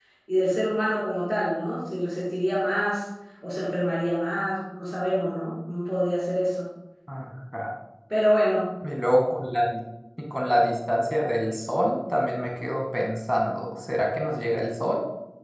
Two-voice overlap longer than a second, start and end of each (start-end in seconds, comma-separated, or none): none